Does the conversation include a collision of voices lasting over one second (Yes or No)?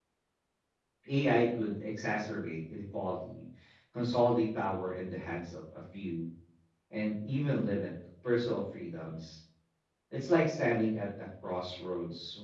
No